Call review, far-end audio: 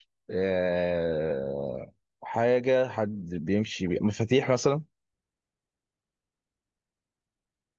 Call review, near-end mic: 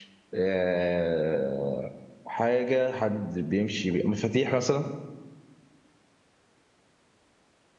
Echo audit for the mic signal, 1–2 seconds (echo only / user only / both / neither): echo only